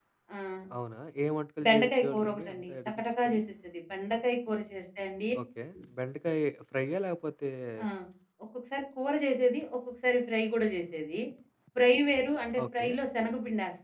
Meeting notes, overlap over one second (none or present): present